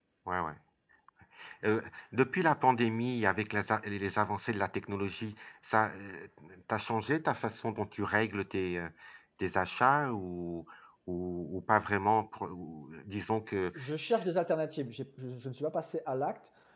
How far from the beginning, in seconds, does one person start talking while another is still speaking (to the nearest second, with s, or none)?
none